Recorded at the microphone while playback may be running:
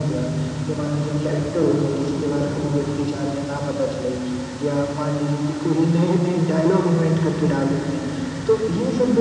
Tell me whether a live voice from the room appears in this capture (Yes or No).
No